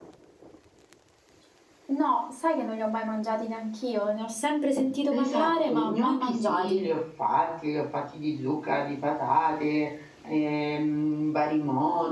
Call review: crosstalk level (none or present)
present